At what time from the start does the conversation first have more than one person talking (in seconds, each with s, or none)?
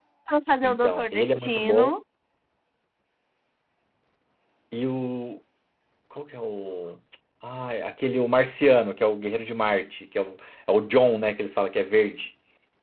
0.6 s